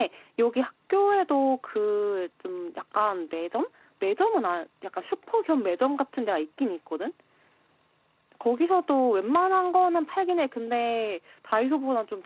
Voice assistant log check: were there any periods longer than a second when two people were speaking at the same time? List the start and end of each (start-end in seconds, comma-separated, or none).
none